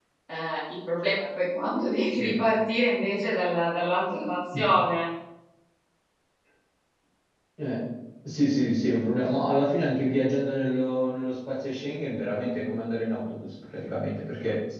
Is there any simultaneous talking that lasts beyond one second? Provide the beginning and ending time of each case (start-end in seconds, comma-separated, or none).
none